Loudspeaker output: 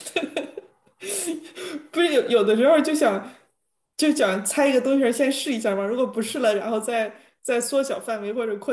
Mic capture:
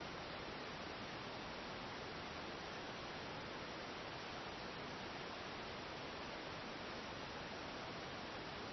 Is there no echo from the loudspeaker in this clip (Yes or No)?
Yes